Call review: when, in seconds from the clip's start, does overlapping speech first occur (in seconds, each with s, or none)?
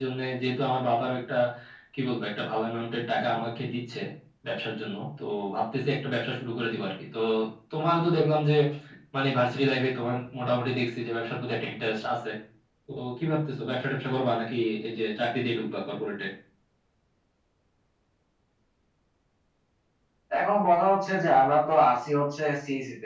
none